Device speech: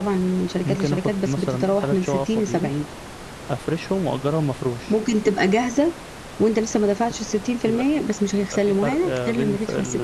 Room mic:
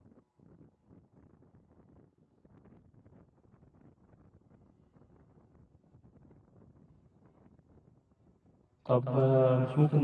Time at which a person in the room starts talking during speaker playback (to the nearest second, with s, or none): 9 s